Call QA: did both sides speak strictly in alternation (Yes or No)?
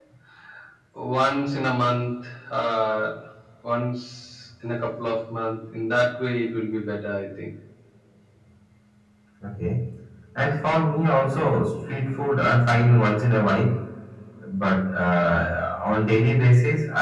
Yes